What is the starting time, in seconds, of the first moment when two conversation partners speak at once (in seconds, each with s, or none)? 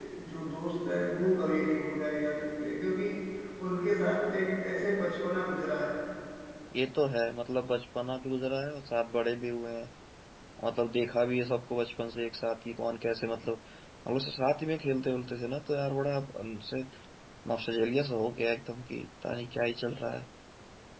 none